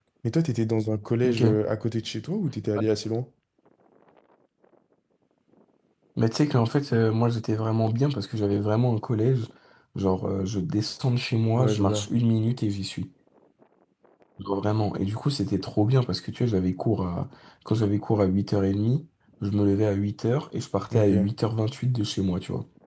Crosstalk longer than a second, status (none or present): none